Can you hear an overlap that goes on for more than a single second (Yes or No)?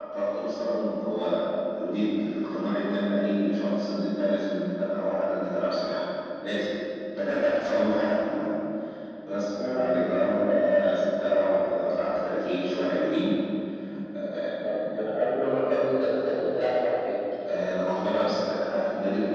No